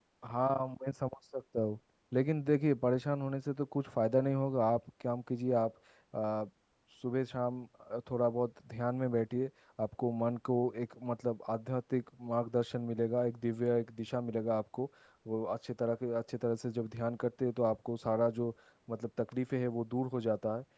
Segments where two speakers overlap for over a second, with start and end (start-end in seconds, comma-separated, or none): none